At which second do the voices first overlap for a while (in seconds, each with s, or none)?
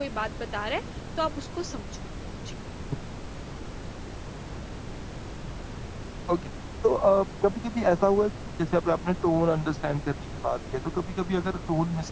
none